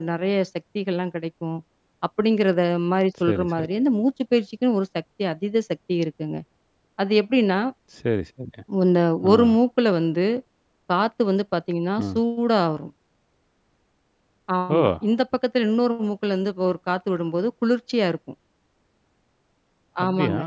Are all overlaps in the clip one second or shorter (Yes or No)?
Yes